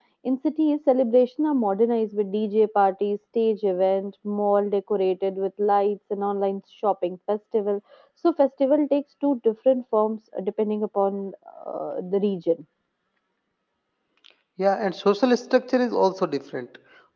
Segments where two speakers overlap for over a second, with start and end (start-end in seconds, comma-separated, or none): none